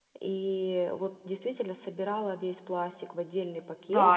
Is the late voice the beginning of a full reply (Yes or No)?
Yes